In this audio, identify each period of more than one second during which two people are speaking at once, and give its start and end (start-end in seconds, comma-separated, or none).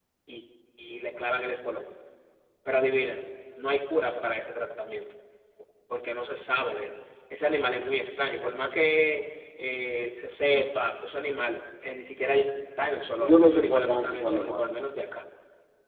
13.2-14.8